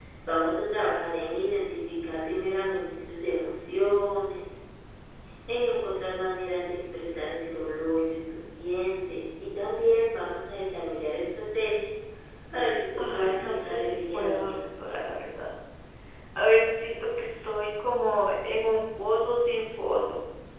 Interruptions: present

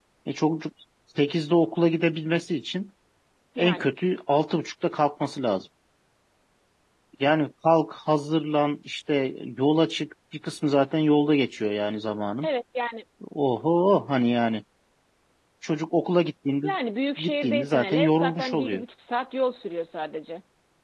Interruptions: present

